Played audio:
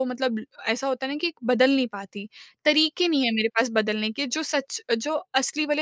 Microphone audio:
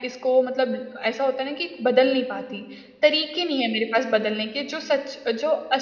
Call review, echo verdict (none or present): present